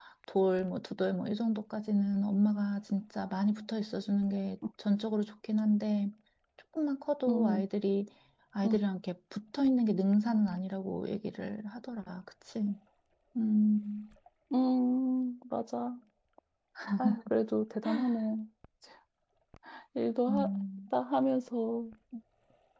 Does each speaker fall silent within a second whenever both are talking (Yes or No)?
Yes